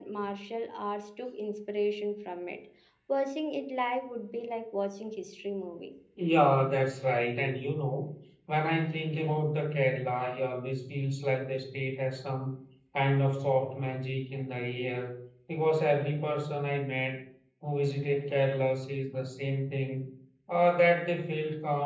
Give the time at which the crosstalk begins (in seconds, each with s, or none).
none